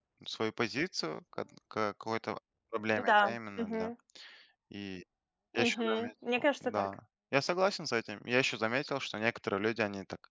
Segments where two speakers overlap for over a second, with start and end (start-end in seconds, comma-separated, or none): 5.5-6.9